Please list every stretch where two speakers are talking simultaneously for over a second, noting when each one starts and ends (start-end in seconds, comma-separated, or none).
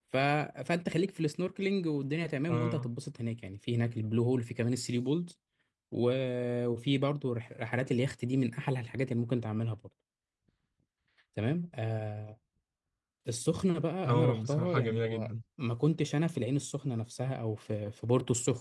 14.1-15.3